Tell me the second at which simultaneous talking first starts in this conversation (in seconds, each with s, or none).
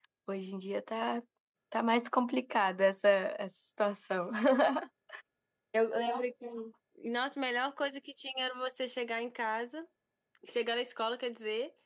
none